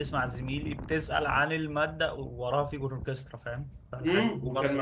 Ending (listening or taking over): taking over